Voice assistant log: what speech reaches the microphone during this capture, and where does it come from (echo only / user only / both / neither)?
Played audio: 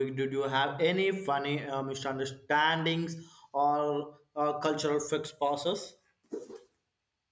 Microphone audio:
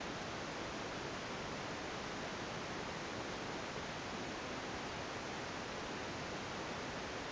neither